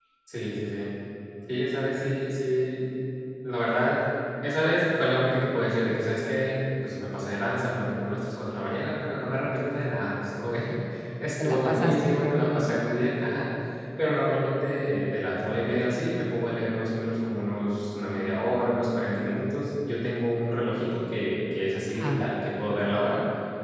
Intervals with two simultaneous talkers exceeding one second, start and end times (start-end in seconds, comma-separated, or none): 11.4-12.7